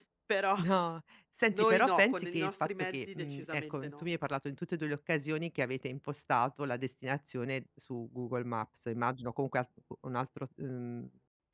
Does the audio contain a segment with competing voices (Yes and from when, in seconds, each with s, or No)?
Yes, from 1.5 s